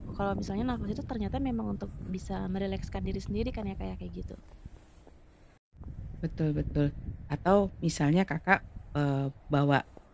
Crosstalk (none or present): none